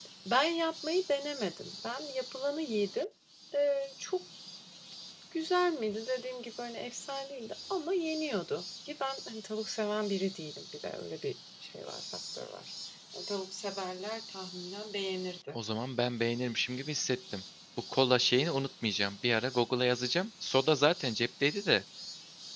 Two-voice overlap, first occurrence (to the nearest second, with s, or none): none